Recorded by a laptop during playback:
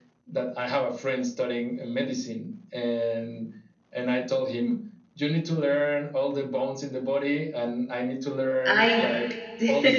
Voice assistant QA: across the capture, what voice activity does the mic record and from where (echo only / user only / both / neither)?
both